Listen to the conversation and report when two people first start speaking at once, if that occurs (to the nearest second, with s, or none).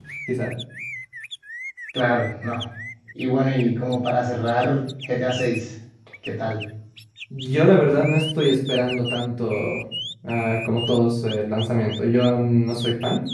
none